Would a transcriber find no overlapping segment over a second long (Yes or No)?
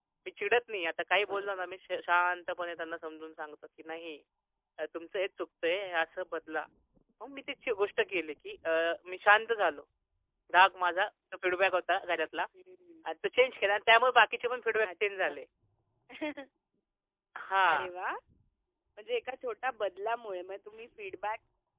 Yes